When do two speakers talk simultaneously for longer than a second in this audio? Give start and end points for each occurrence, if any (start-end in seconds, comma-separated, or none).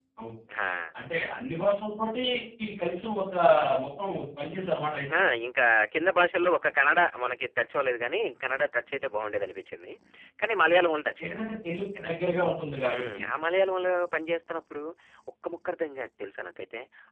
none